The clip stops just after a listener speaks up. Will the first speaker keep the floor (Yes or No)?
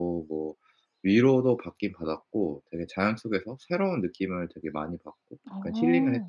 No